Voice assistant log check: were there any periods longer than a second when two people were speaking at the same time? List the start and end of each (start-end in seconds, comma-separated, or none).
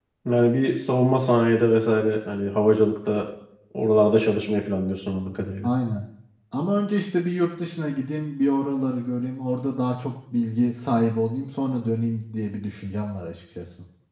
none